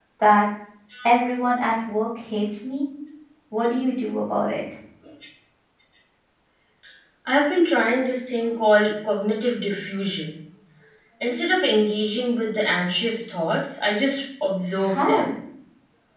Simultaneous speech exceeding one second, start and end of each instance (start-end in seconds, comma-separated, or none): none